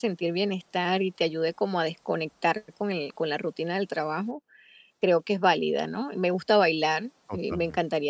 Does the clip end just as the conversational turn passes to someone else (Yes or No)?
No